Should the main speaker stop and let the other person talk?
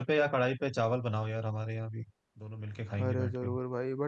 Yes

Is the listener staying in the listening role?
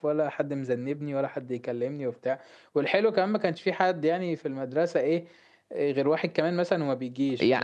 No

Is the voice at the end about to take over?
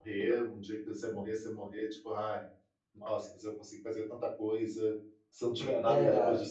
No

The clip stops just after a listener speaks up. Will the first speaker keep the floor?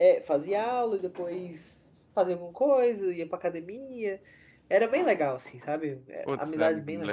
No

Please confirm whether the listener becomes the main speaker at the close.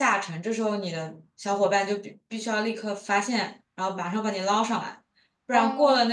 No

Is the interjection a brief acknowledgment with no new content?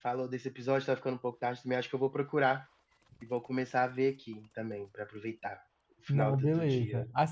No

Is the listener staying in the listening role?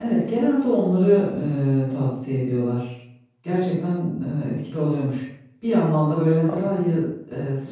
Yes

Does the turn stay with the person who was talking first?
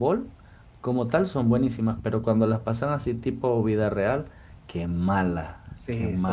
No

